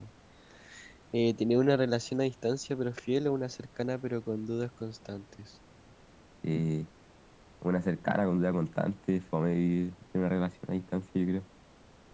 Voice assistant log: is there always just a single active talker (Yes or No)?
Yes